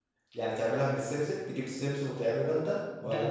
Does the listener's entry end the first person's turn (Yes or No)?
Yes